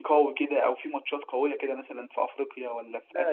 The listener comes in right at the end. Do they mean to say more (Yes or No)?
Yes